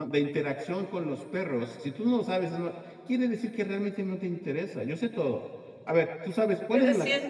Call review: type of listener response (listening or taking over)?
taking over